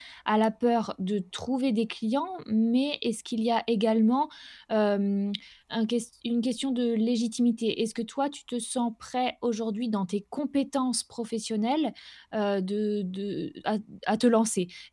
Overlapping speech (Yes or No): No